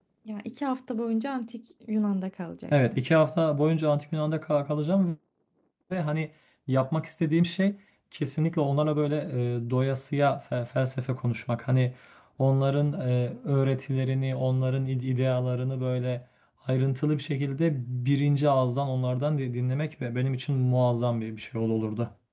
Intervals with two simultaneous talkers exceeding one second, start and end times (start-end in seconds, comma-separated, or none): none